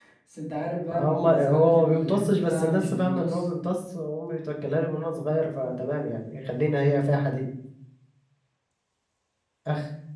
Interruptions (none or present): present